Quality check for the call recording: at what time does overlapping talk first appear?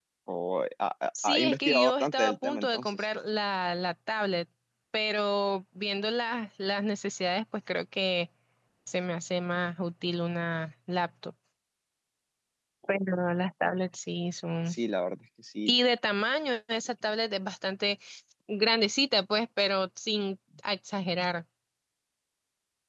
1.2 s

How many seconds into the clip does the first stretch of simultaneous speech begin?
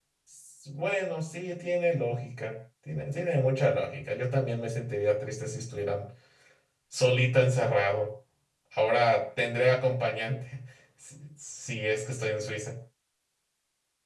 none

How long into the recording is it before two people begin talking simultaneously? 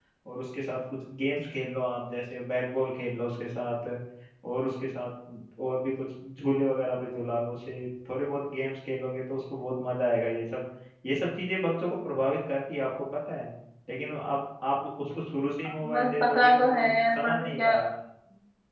15.8 s

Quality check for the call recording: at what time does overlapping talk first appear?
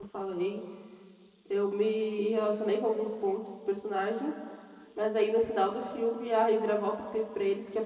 none

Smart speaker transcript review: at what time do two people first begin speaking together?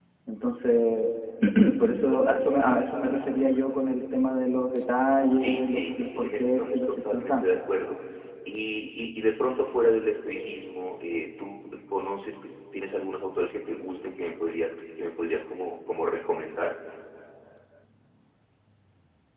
5.3 s

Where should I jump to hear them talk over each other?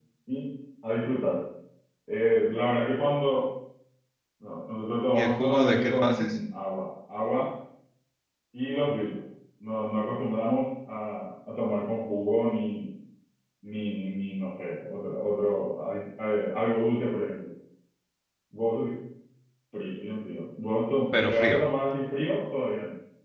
5.1 s

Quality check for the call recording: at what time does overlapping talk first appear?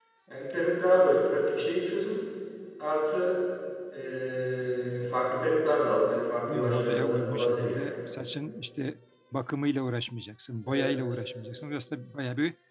6.5 s

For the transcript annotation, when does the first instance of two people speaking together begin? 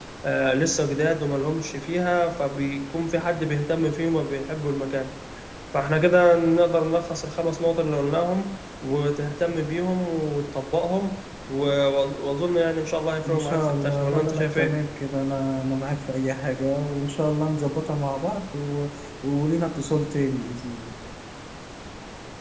13.2 s

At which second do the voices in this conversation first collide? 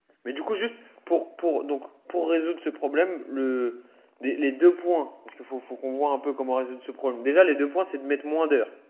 none

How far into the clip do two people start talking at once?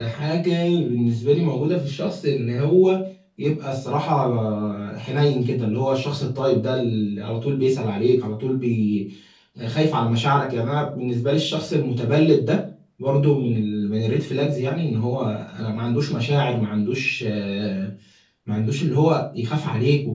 none

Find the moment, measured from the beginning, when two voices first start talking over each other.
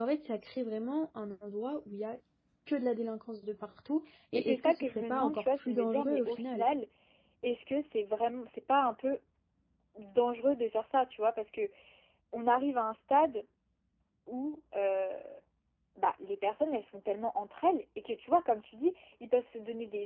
4.3 s

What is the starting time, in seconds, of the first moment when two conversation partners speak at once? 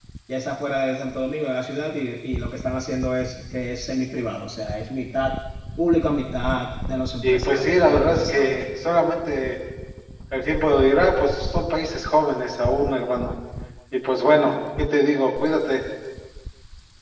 7.2 s

